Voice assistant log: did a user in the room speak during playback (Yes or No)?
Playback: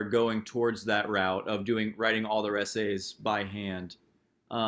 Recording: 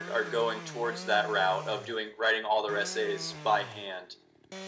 No